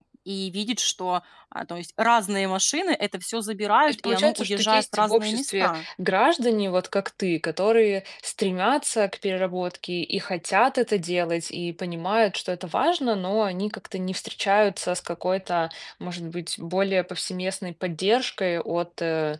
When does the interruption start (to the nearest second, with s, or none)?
4 s